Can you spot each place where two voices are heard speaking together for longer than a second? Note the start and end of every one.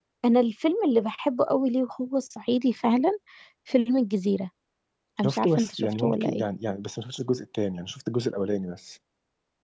5.2-6.4

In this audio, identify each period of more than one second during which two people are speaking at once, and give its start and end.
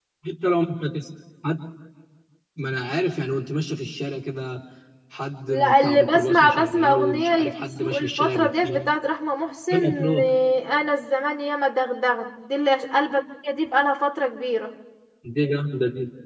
5.5-8.9

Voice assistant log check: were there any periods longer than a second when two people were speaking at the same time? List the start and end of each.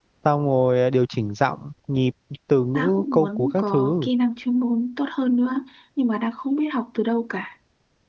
2.8-4.1

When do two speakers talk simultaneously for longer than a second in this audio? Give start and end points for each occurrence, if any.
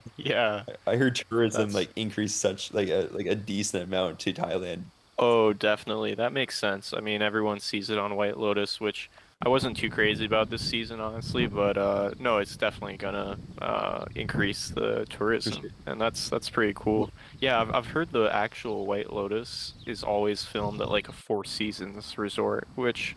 none

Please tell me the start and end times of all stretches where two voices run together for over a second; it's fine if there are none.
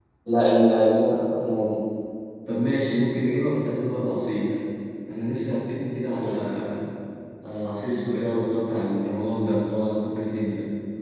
none

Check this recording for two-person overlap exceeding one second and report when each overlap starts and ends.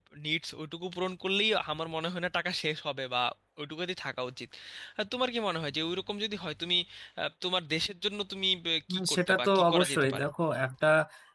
8.9-10.2

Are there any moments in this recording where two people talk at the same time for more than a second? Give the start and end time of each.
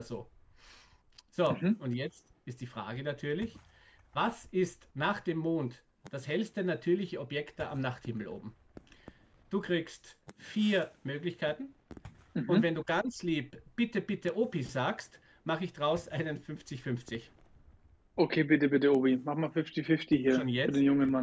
none

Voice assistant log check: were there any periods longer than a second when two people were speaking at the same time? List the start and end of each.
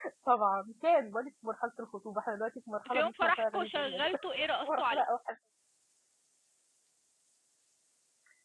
2.9-4.2

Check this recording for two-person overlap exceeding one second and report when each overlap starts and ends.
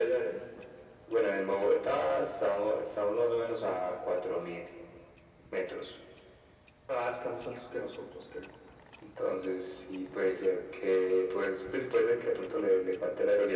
none

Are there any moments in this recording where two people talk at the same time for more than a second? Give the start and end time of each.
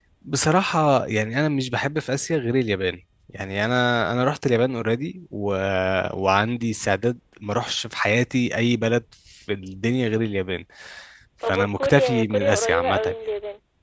11.5-13.1

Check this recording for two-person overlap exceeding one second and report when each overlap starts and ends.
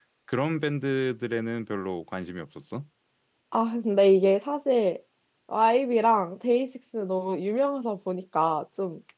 none

